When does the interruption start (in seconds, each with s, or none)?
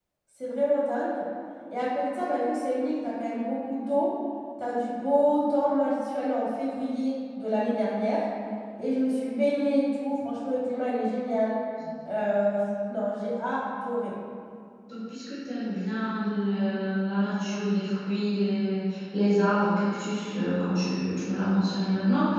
none